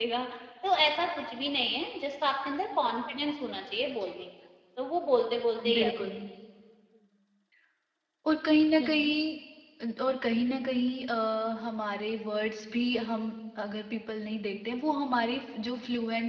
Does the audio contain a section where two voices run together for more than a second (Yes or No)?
No